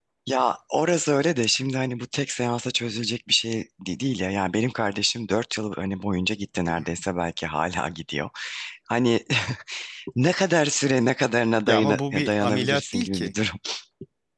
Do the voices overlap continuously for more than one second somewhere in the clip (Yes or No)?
Yes